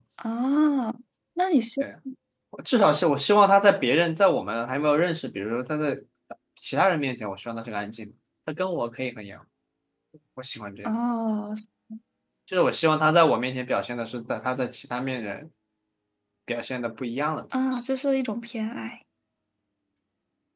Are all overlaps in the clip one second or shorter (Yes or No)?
Yes